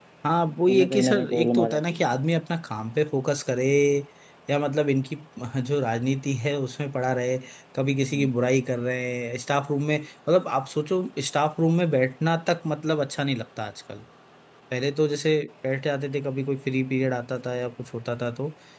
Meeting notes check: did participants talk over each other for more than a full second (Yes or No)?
Yes